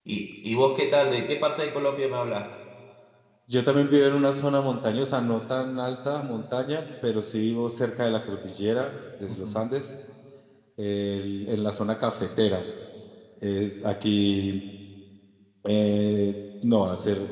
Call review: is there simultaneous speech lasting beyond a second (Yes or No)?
No